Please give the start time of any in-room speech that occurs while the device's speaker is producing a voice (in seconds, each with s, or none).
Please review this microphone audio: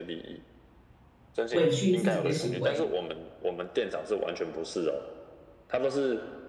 1.5 s